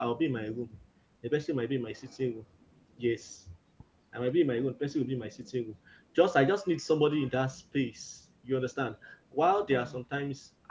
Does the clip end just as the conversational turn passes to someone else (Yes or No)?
No